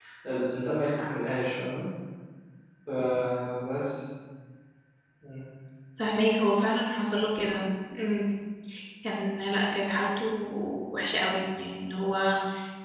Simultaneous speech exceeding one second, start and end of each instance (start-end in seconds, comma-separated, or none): none